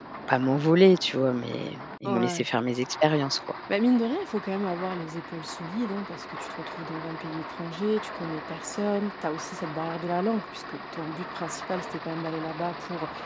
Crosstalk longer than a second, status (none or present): none